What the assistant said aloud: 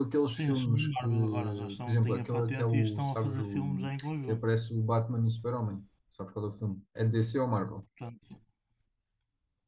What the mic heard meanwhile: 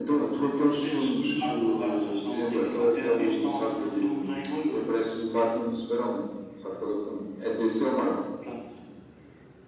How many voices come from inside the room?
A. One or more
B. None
B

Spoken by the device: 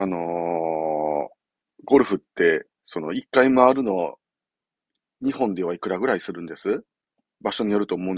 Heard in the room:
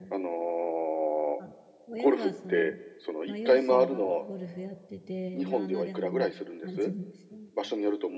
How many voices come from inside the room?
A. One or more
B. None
A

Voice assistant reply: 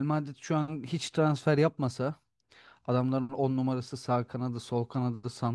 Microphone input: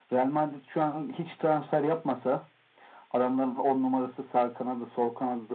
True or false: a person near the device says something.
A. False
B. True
A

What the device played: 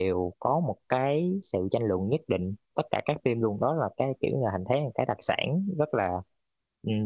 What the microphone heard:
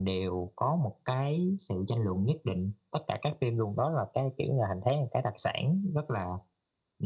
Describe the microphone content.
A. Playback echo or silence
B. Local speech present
A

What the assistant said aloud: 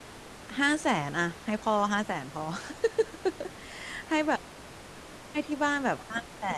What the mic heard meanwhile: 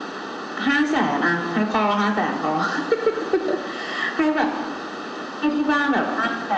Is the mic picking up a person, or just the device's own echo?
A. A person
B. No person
B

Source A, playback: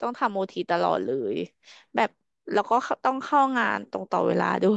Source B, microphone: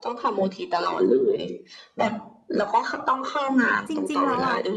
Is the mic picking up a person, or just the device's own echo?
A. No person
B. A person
B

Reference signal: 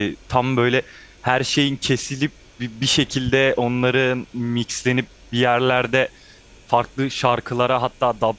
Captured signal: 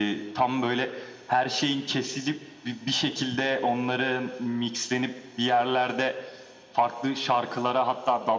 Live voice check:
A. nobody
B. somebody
A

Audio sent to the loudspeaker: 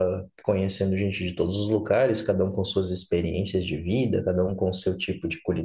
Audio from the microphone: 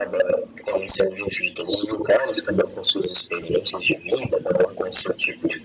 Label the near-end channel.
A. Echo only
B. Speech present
A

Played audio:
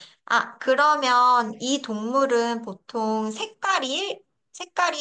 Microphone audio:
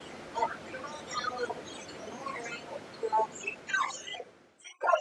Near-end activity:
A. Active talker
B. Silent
B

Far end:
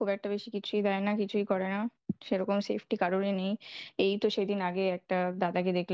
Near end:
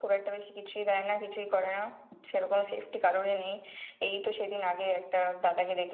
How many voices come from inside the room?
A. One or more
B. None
B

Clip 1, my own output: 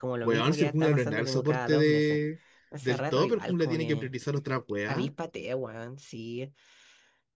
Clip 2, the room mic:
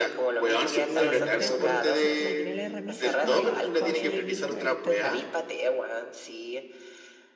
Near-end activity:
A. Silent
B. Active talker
B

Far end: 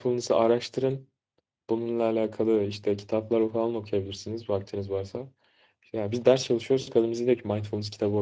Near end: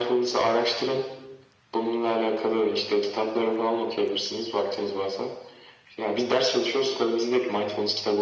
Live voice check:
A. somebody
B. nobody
B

